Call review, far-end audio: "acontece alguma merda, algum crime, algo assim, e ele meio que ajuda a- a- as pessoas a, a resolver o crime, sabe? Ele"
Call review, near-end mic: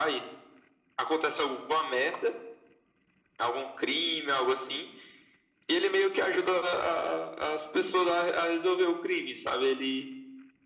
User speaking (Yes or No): No